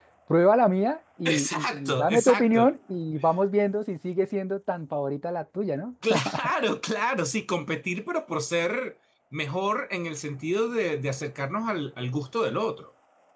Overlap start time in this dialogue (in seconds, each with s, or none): 1.2 s